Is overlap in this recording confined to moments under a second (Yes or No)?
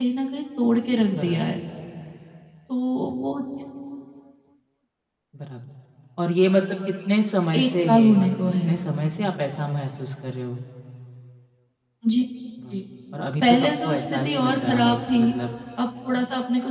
No